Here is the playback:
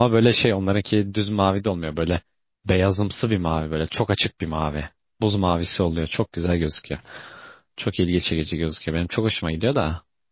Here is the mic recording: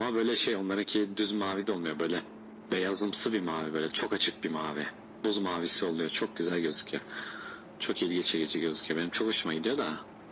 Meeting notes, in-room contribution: none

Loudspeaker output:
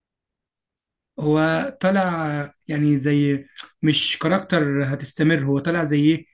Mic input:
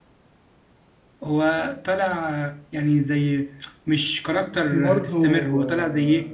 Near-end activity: present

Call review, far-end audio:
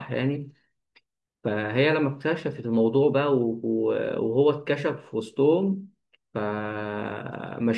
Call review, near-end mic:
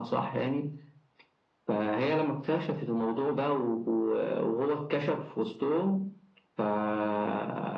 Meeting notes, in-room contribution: none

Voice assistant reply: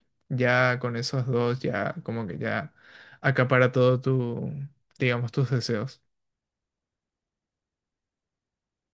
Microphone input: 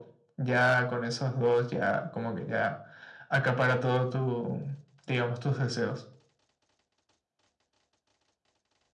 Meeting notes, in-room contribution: none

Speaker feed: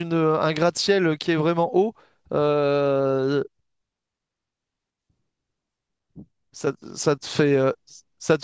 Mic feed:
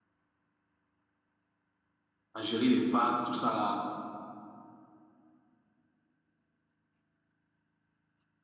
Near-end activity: present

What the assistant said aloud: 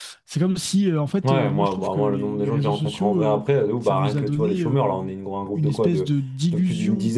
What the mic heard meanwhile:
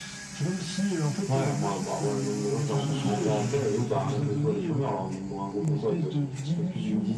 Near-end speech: present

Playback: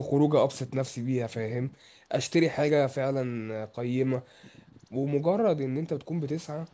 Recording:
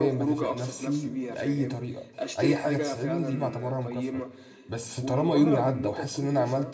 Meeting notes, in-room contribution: present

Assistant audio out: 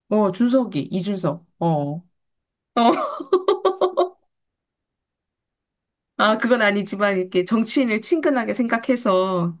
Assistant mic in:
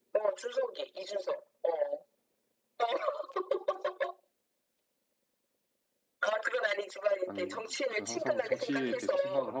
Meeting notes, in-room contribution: present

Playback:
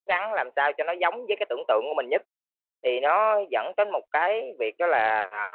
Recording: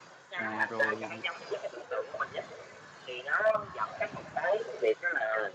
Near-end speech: present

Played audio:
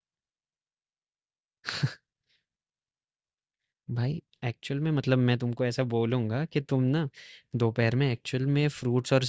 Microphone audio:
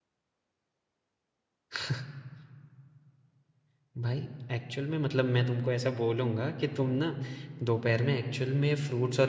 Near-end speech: none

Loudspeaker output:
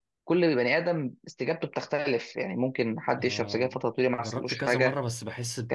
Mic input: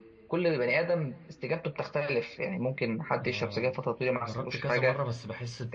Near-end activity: none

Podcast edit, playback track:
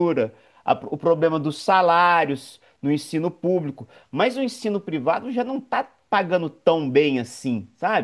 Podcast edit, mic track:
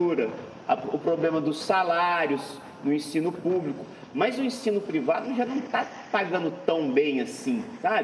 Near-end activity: none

